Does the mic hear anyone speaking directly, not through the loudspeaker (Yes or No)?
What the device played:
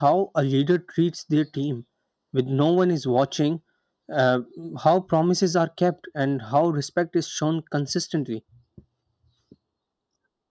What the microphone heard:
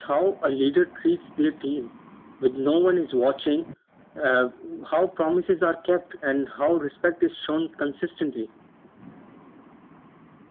No